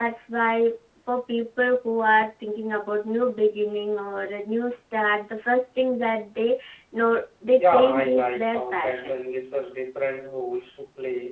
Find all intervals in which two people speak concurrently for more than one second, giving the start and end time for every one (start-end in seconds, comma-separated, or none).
7.5-9.1